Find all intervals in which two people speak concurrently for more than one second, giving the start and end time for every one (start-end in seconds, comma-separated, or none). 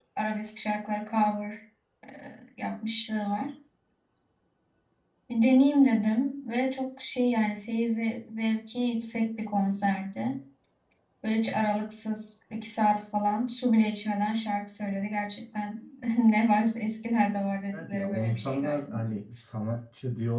17.7-19.0